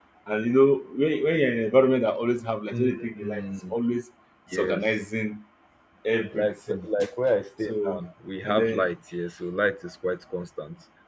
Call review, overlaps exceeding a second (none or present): none